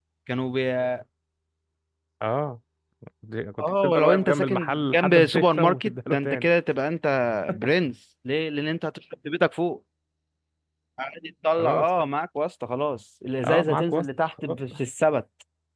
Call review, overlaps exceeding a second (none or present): present